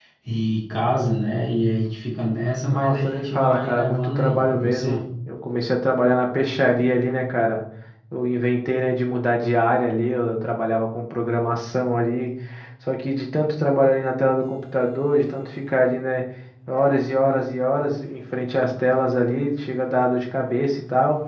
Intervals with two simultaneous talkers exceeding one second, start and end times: 2.7-5.0

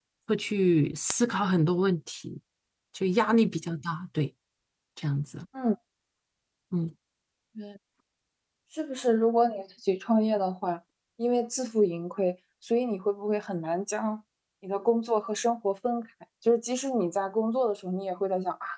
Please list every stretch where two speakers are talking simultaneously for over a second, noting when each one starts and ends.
none

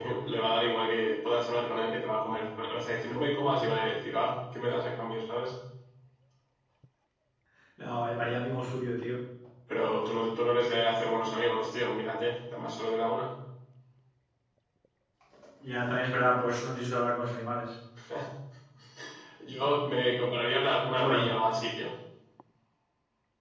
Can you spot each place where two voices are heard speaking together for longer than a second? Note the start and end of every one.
none

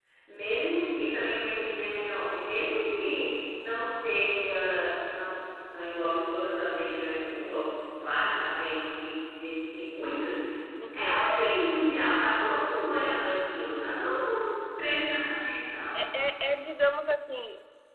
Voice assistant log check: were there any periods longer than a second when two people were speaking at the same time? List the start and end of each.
none

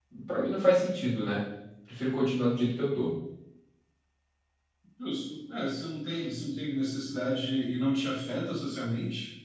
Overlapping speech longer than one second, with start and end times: none

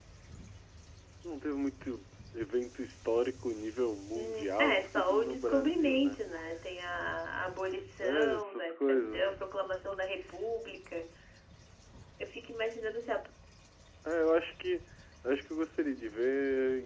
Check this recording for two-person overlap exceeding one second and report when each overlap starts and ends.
4.1-6.2, 8.0-9.3

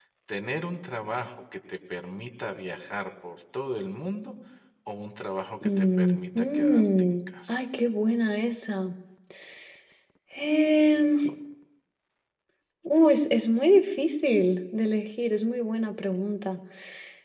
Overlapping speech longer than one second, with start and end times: 5.6-7.6

